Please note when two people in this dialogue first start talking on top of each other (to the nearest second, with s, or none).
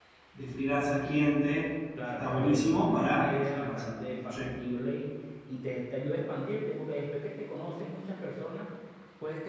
2 s